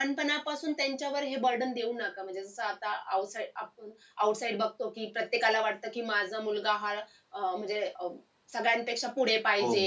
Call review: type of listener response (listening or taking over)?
taking over